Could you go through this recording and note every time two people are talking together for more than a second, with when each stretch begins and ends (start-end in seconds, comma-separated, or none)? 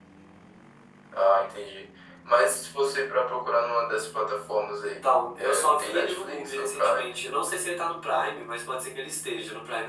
4.8-7.2